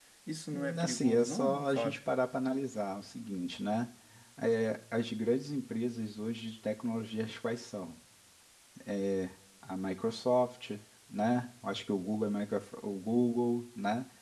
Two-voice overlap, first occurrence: 0.5 s

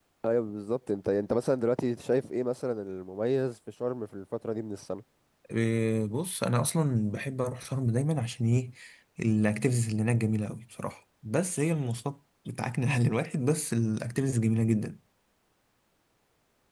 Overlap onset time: none

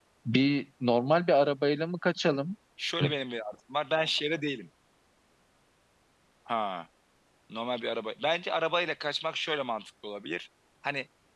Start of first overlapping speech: none

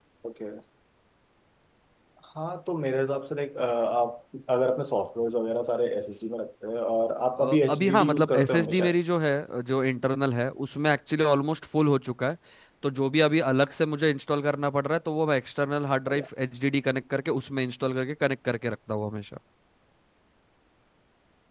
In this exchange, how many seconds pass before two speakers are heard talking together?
7.4 s

